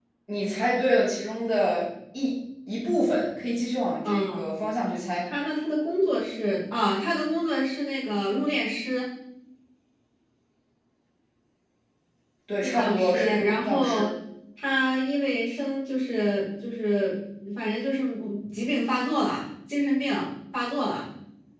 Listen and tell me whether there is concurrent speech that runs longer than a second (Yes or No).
Yes